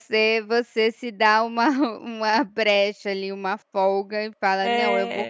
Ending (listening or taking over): listening